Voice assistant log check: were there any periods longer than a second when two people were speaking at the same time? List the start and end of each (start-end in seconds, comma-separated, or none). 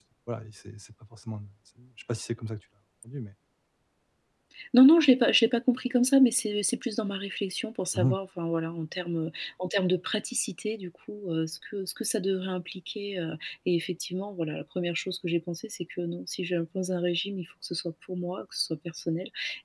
none